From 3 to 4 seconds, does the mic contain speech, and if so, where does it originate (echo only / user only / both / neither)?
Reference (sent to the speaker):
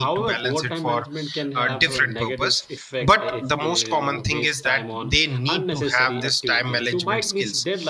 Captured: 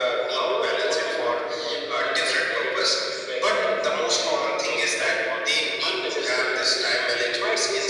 echo only